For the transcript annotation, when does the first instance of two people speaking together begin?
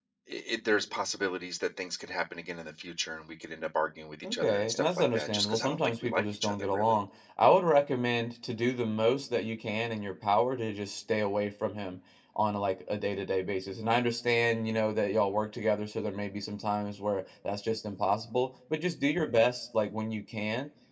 4.2 s

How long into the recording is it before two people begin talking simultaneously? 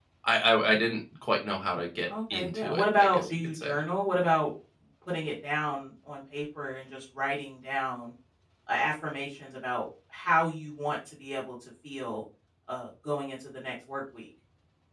2.1 s

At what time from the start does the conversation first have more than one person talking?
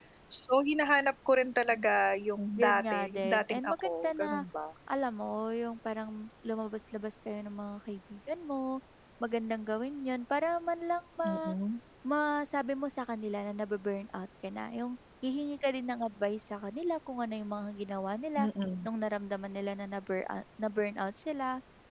2.6 s

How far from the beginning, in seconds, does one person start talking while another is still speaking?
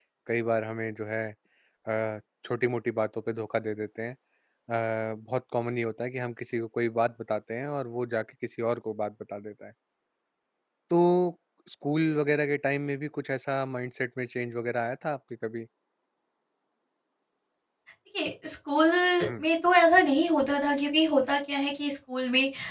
none

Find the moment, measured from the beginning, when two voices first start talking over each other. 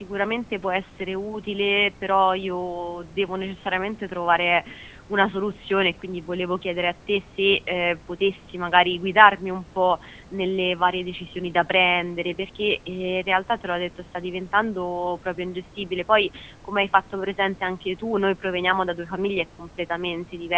none

